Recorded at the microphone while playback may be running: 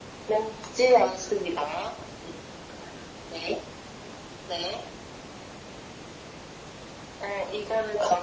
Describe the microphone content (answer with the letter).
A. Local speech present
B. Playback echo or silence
B